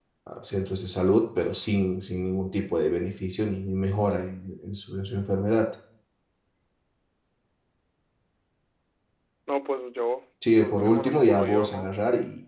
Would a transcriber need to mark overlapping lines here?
Yes, from 10.4 s

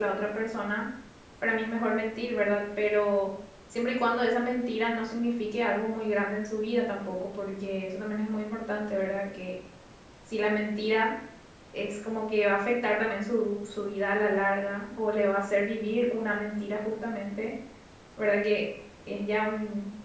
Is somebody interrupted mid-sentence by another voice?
No

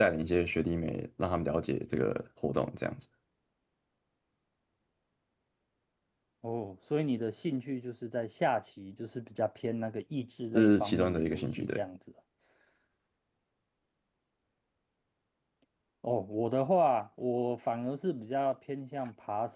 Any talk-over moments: Yes, from 10.5 s

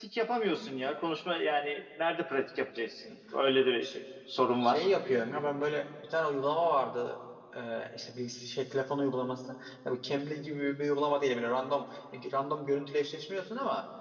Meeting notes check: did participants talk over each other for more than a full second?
No

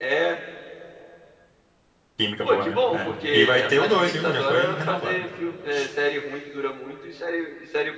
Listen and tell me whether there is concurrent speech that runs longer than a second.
Yes, from 2.4 s

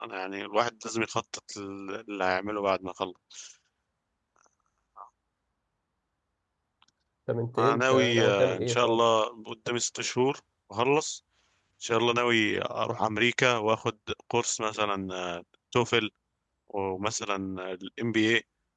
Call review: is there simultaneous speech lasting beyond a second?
Yes, from 7.6 s

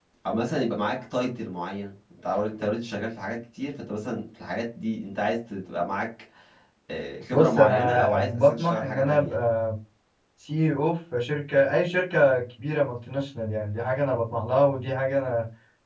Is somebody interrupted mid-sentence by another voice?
Yes, from 7.3 s

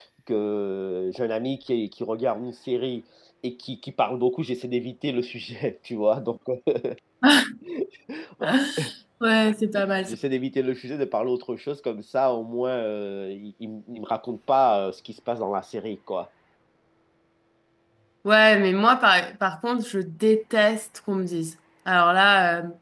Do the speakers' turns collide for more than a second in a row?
No

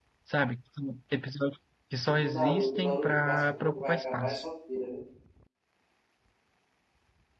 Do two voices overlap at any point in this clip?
Yes, from 2.2 s

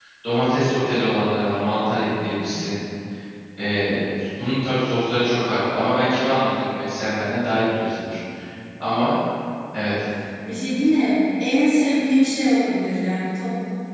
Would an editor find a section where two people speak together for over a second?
No

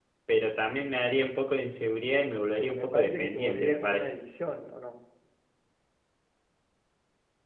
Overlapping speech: Yes, from 2.4 s

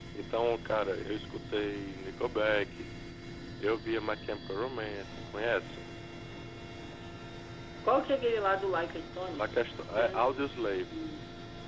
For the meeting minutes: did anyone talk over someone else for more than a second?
No

